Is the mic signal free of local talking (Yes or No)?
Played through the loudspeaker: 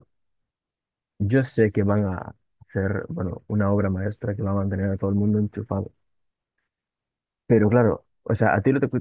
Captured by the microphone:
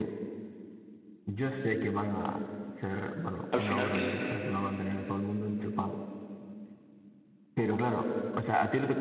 No